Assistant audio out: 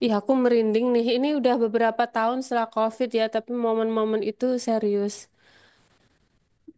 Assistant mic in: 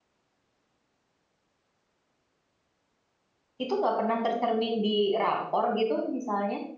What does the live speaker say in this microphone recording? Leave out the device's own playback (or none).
Itu nggak pernah tercermin di rapor gitu misalnya.